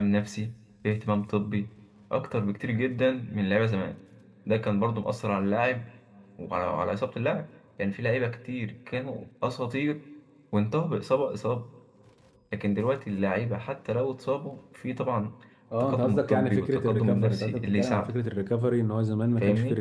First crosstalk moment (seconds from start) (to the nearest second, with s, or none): 16 s